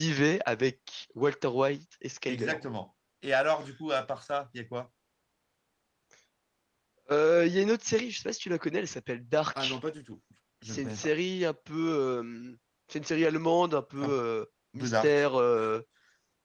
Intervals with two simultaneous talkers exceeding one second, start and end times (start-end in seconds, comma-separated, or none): none